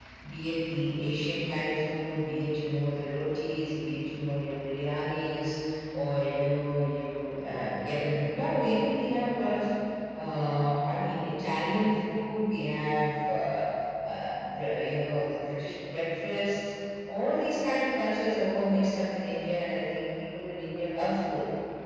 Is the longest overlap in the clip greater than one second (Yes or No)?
No